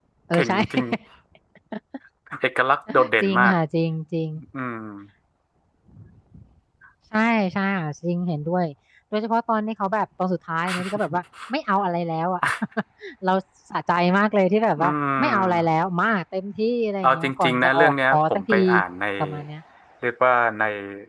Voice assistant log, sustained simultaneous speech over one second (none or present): present